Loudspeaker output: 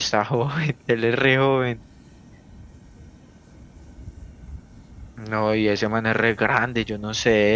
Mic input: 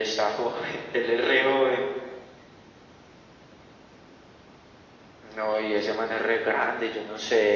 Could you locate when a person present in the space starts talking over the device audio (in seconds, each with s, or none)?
none